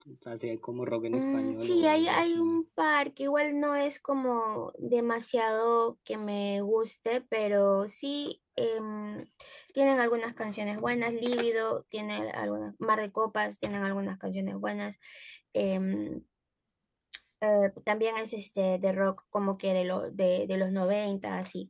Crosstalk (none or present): present